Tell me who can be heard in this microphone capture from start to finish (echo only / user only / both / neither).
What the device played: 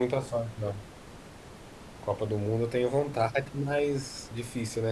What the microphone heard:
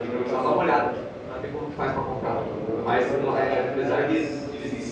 both